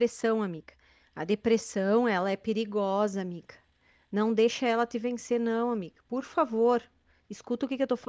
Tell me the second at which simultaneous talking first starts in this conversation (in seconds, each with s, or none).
none